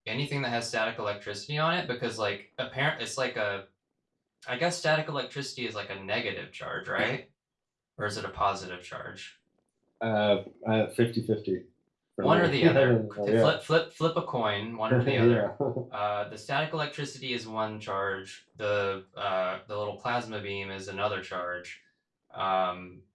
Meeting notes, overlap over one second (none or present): present